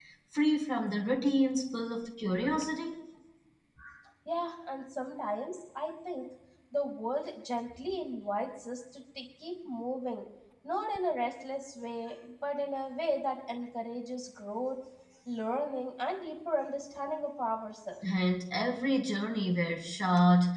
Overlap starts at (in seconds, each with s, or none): none